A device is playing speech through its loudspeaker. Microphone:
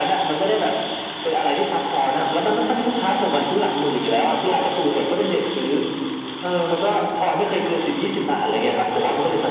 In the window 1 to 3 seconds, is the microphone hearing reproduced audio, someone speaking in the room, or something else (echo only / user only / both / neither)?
echo only